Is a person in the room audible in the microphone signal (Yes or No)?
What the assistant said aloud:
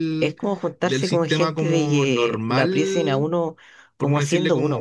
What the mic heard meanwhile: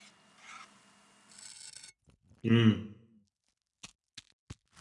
Yes